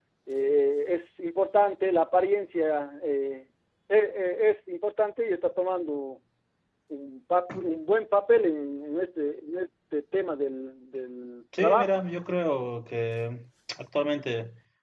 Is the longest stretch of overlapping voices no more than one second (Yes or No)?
Yes